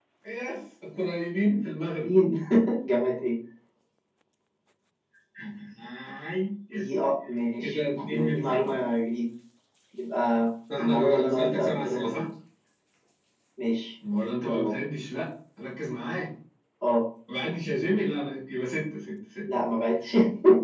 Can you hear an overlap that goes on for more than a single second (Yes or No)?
Yes